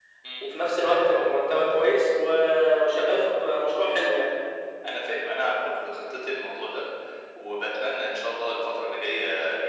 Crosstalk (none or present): none